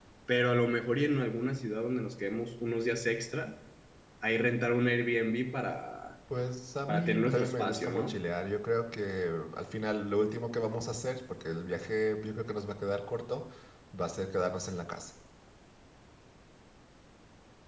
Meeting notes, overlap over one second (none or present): present